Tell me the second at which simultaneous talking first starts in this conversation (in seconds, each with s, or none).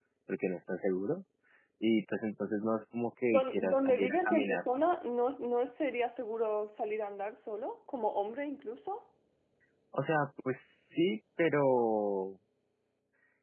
3.3 s